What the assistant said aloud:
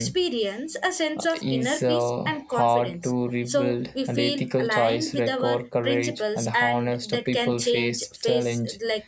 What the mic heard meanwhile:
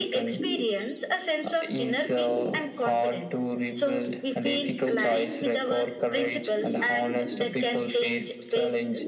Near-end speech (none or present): none